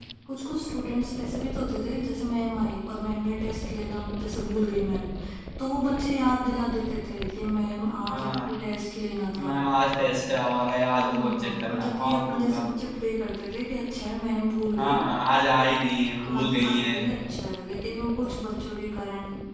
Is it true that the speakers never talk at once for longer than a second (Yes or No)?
No